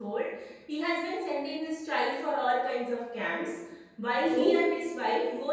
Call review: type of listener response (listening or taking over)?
listening